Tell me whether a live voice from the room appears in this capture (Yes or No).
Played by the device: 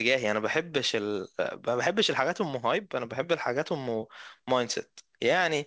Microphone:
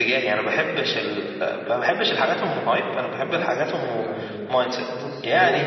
Yes